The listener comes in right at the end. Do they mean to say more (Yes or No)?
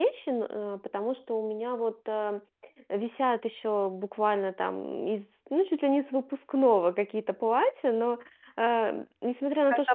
No